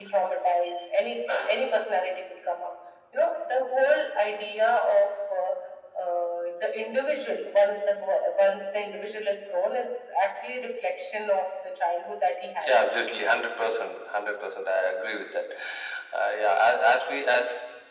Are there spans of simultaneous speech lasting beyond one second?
No

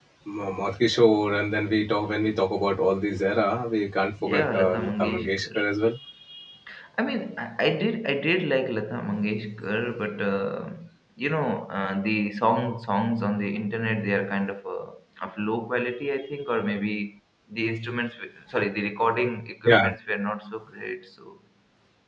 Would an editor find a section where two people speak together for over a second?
Yes, from 4.3 s

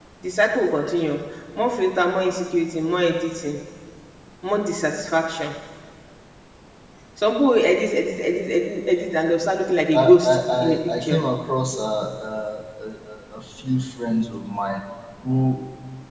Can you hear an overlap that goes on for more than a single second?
Yes, from 9.9 s

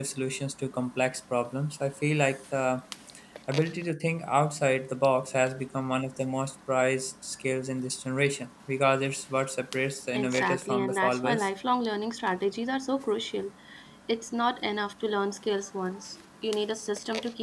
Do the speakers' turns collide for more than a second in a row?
Yes, from 10.1 s

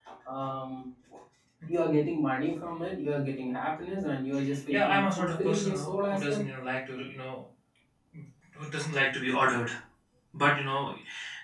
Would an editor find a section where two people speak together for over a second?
Yes, from 4.7 s

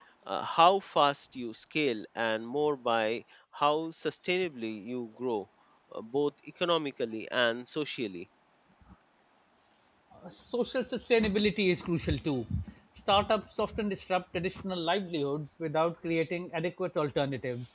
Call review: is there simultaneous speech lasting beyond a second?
No

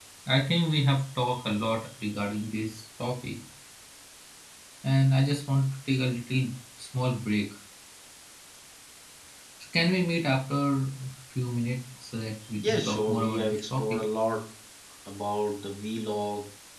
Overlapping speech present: Yes, from 12.6 s

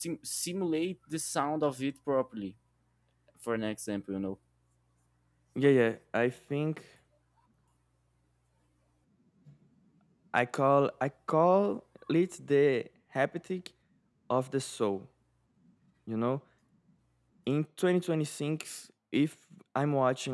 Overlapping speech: No

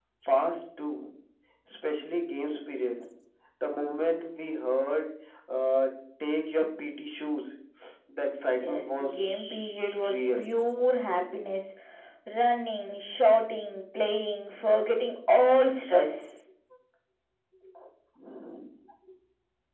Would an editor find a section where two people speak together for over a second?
Yes, from 8.5 s

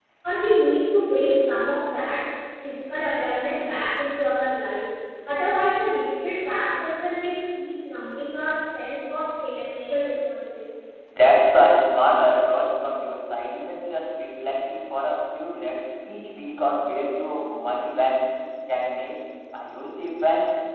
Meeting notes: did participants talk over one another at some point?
No

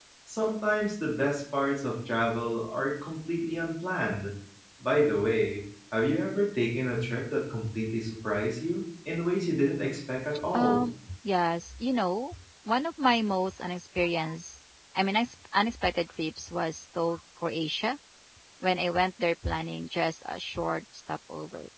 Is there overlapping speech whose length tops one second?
No

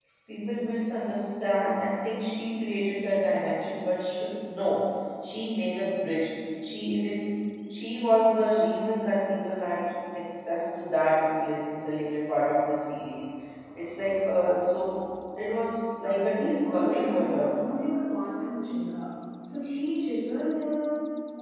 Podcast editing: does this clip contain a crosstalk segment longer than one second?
Yes, from 16.0 s

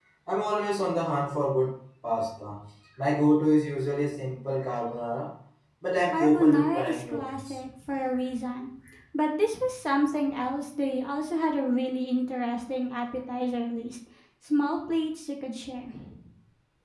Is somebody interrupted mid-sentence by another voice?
Yes, from 6.1 s

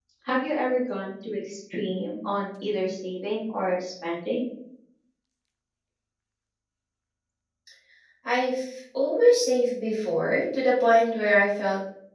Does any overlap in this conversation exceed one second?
No

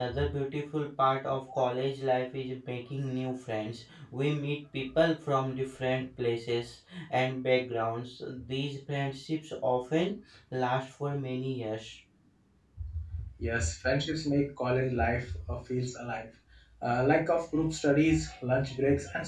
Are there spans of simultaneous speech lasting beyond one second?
No

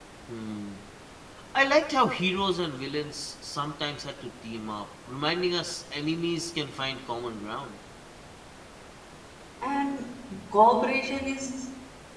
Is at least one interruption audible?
No

